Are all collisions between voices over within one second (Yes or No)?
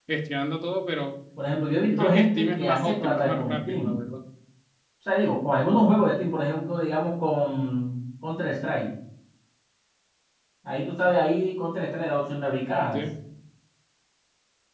No